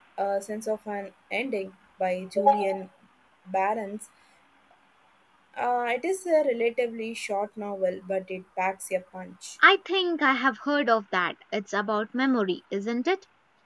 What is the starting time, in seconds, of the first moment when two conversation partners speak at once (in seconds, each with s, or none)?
none